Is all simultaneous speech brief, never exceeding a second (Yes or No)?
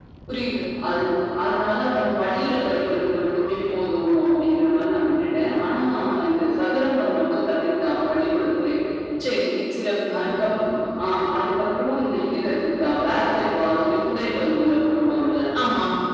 Yes